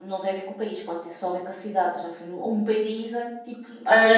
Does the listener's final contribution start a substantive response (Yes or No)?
Yes